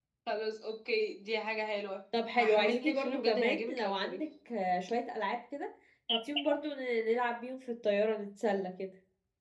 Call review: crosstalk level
present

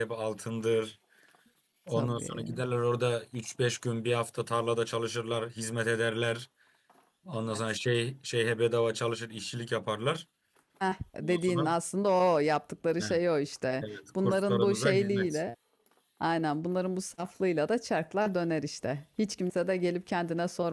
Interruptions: present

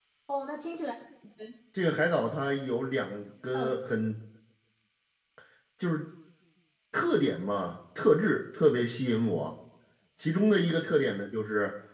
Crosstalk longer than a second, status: none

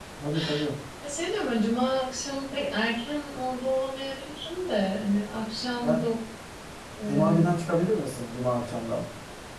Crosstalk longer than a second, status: none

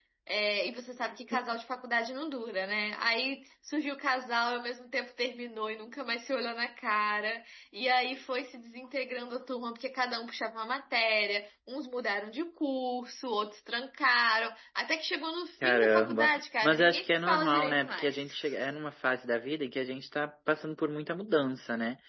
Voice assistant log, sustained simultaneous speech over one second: present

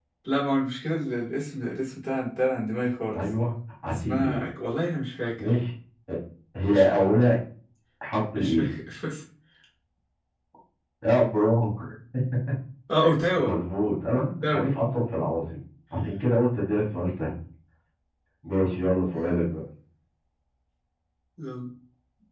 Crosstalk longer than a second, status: none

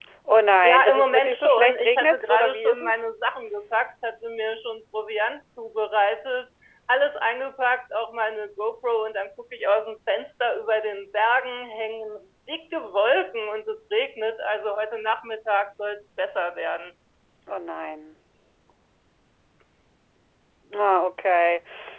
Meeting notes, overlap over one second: present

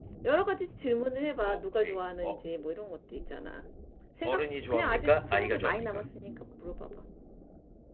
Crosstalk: present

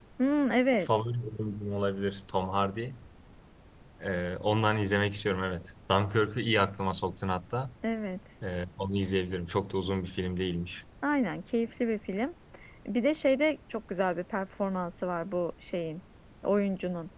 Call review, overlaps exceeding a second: none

